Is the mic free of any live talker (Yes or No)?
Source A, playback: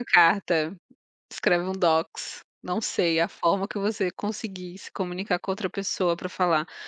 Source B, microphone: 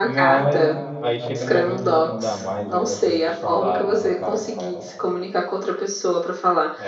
No